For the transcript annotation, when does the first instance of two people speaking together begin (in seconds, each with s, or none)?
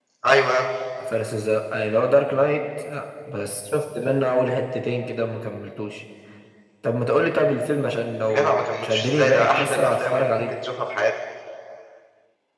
8.3 s